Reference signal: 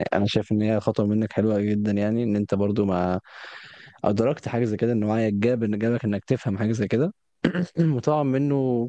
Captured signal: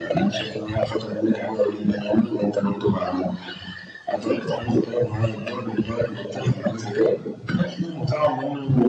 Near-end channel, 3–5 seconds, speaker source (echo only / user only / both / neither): echo only